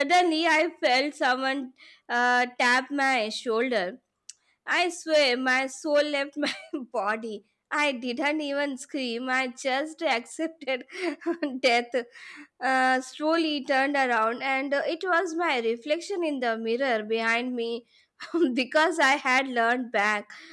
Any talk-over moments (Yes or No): No